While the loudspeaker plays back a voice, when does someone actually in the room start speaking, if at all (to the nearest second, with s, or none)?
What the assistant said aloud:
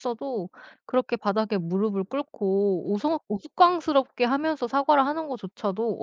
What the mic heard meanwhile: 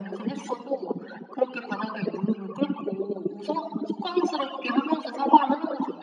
none